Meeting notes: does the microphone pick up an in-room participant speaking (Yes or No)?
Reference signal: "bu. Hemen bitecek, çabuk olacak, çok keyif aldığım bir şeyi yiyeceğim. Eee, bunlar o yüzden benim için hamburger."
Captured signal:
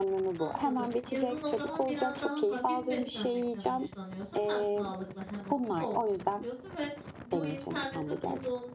Yes